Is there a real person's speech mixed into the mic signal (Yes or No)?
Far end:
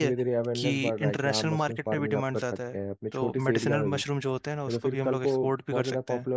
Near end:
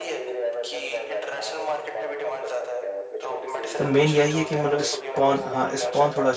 Yes